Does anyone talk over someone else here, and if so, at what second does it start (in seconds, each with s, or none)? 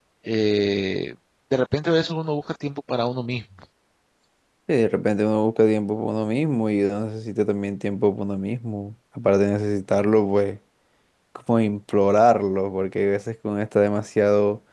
none